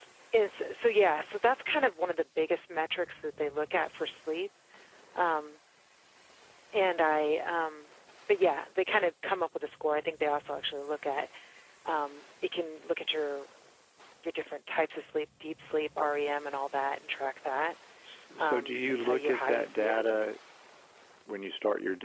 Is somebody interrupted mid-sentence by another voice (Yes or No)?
Yes